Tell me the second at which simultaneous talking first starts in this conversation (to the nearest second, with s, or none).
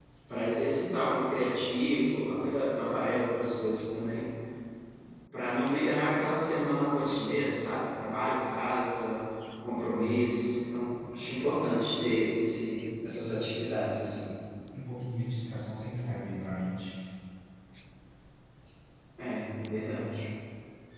none